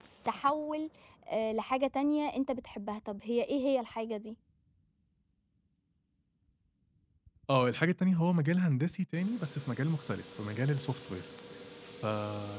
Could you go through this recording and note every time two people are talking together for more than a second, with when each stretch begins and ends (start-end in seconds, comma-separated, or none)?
none